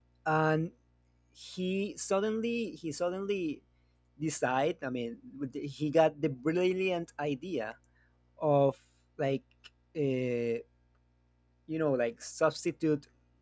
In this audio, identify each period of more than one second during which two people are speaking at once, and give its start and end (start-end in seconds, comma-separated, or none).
none